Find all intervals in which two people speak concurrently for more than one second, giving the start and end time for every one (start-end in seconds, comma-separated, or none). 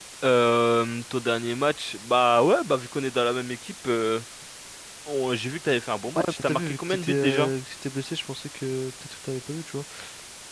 6.2-7.5